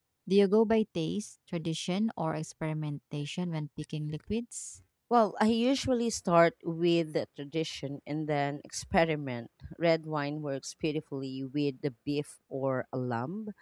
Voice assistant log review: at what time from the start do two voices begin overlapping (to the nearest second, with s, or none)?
none